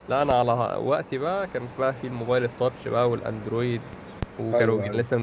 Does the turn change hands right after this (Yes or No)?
No